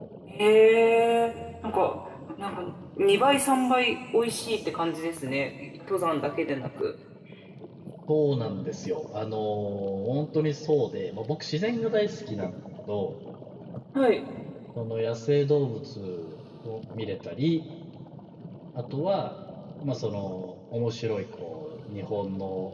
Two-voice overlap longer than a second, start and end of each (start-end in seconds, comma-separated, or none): none